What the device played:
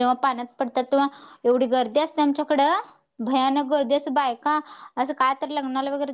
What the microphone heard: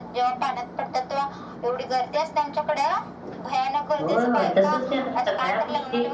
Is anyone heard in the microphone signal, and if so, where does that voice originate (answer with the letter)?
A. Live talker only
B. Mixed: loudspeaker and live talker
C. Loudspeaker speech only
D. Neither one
B